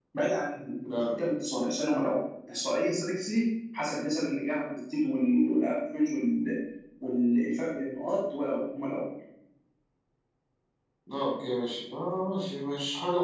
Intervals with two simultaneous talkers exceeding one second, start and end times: none

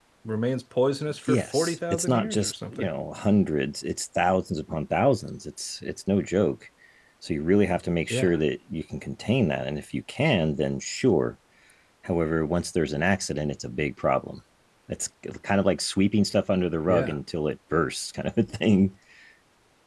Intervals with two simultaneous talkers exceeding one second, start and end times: 1.2-2.9

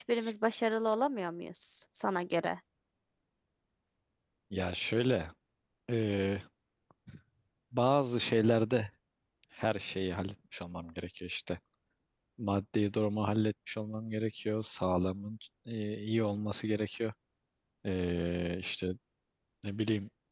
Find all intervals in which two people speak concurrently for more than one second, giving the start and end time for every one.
none

